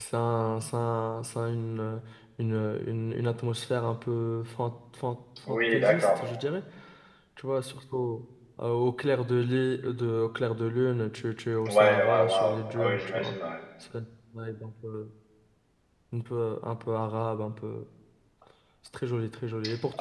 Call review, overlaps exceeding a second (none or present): present